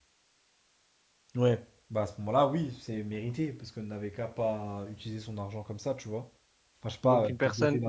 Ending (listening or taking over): taking over